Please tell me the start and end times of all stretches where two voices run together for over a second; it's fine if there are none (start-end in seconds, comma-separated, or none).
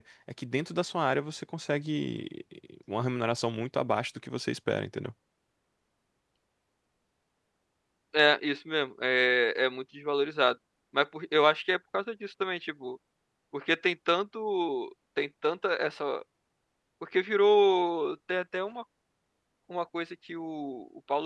none